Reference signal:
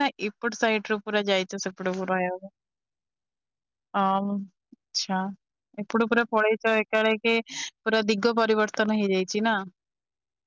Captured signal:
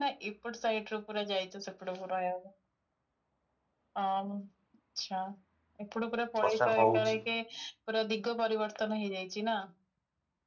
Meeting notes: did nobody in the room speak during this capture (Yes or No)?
No